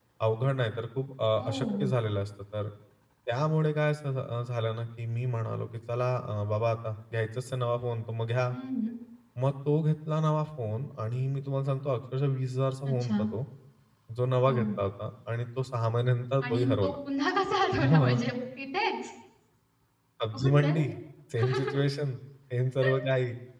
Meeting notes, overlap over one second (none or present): none